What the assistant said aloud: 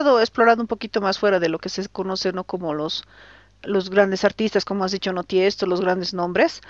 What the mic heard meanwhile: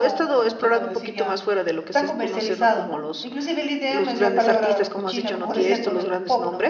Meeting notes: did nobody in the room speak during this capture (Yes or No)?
No